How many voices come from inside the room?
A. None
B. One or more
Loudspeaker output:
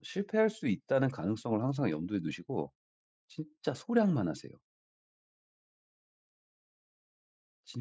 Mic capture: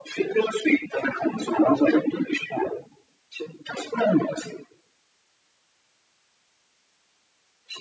A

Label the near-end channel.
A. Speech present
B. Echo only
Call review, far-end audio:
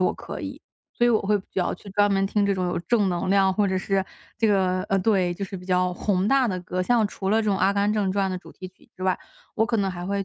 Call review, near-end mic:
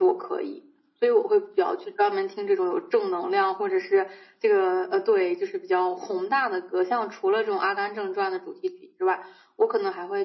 B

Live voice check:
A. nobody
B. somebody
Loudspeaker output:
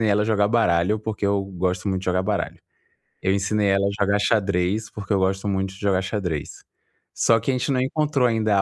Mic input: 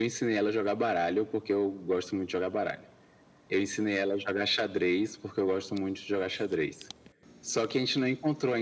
A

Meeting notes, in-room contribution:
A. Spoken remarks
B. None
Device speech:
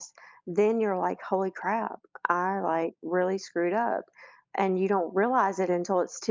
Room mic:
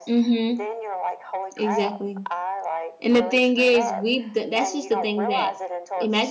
A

